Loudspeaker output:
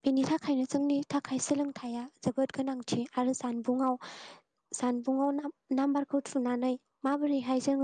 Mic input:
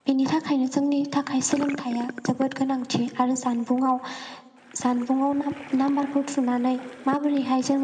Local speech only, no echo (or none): none